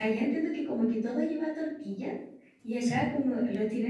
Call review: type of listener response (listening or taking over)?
listening